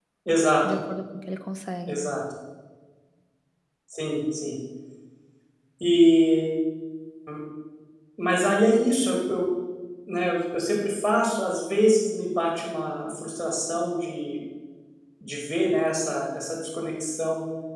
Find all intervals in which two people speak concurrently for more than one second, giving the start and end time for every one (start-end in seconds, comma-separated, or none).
none